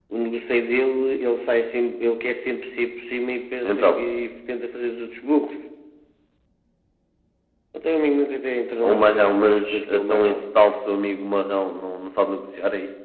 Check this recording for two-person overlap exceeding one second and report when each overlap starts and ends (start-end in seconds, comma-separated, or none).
8.8-10.4